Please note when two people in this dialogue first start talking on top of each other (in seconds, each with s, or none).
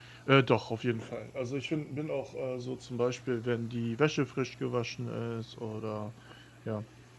none